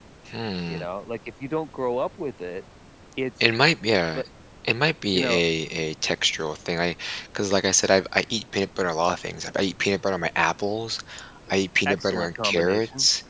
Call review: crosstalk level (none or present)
present